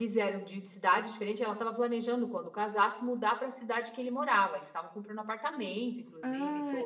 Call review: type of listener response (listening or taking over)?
taking over